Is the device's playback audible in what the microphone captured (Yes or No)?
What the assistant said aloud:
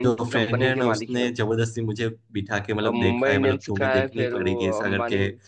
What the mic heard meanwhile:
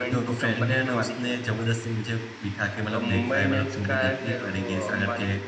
Yes